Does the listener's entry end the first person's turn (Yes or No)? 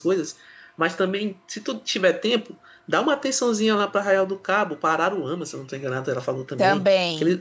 No